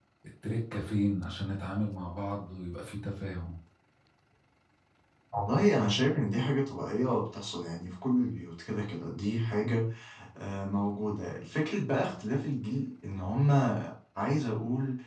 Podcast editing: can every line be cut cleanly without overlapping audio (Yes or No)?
Yes